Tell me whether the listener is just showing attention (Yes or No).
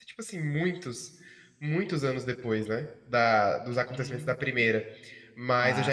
Yes